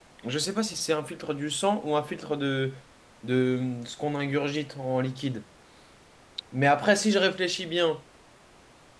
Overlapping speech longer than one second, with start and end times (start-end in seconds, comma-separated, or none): none